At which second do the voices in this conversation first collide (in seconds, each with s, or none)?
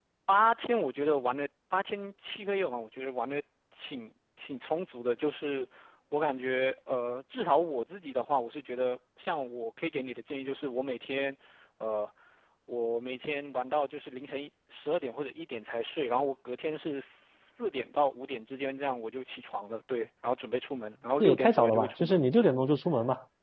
21.2 s